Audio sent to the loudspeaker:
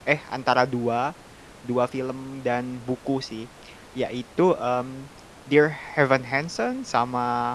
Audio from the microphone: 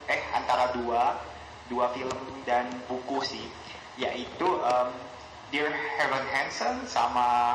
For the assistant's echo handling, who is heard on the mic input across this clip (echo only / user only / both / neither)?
echo only